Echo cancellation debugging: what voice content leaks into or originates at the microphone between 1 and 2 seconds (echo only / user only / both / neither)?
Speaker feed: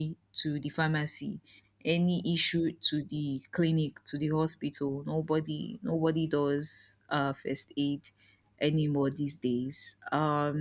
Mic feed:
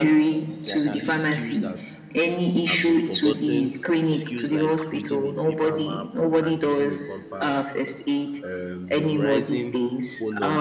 both